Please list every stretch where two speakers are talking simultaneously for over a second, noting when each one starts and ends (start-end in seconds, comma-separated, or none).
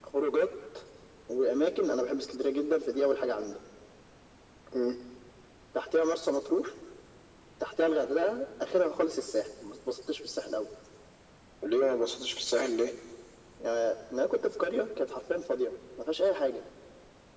none